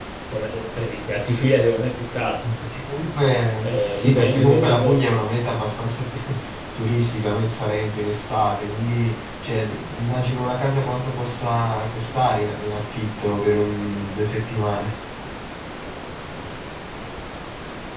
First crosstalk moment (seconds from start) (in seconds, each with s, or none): 3.6 s